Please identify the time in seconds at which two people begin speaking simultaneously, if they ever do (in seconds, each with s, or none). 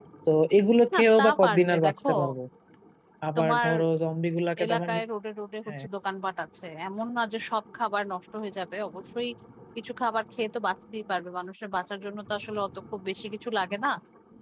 0.9 s